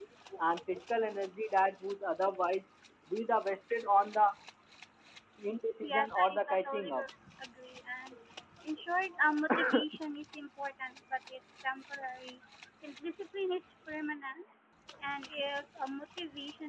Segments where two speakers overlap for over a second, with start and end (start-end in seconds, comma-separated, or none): 5.8-7.0